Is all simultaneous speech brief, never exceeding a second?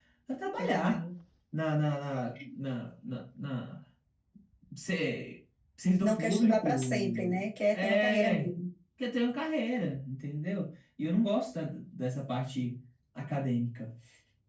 No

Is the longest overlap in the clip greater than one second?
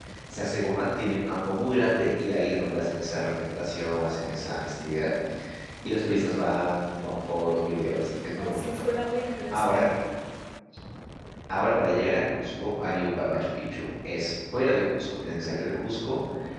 No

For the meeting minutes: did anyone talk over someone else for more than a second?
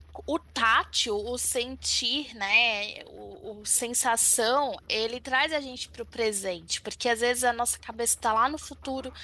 No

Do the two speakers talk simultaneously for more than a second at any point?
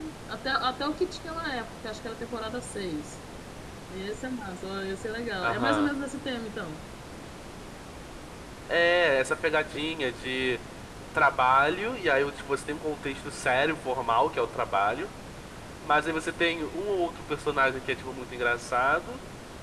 No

